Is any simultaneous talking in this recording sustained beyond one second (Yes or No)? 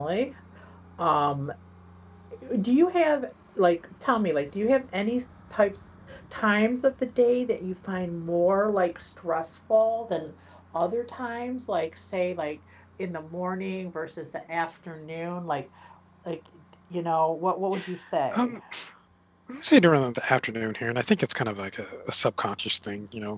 No